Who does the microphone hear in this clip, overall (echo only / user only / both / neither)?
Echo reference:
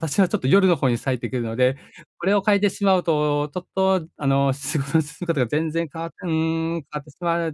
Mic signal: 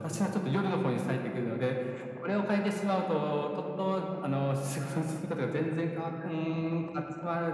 echo only